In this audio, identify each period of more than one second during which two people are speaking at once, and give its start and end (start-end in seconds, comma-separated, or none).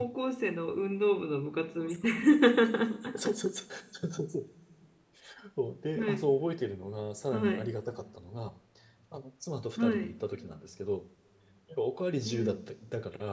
none